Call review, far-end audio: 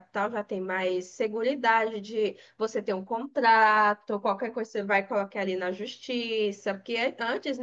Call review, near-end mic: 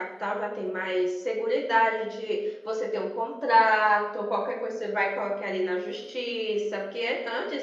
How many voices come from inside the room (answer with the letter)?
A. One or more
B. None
B